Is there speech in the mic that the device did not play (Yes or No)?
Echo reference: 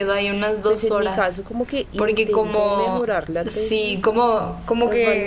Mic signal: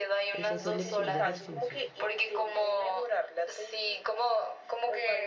Yes